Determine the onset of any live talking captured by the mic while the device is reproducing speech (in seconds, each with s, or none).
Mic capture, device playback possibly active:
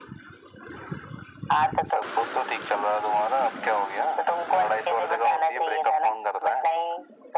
none